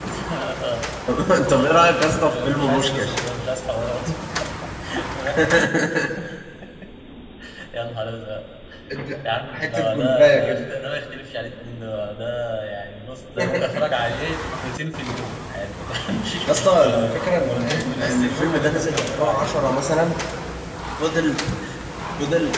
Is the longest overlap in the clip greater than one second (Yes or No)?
Yes